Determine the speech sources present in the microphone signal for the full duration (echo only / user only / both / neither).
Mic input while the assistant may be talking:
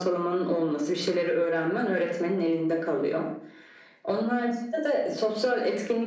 echo only